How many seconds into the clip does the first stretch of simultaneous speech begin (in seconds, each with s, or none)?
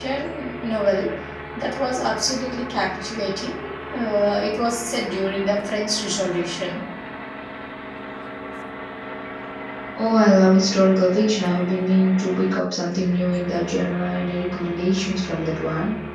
none